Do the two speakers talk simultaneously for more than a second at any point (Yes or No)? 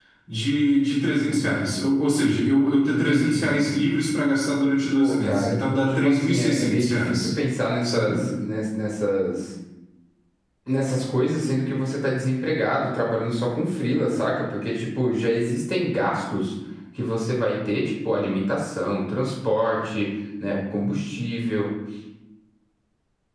Yes